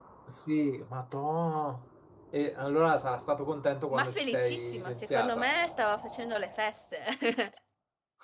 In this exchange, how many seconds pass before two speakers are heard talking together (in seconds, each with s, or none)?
3.9 s